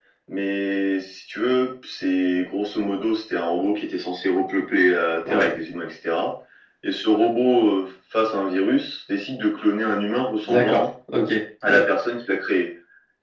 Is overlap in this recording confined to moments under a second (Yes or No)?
Yes